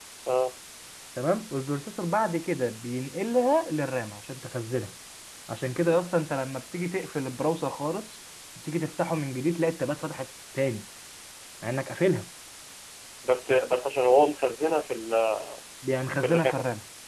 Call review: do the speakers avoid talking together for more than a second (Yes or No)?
Yes